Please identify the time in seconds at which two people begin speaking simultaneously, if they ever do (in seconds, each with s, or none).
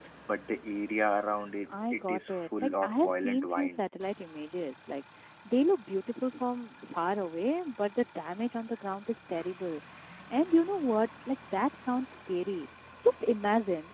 1.7 s